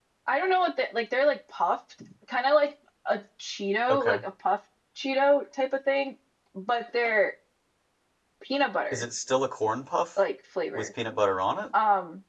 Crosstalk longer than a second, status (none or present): none